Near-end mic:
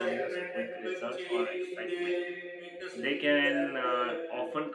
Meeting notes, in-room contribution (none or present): present